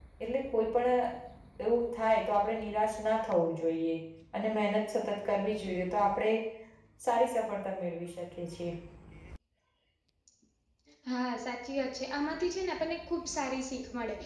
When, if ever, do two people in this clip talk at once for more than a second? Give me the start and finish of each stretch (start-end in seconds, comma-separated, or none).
none